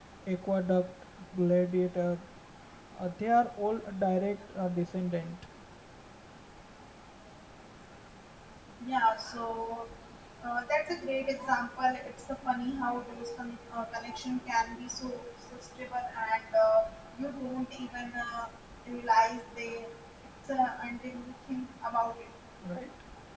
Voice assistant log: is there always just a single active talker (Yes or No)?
Yes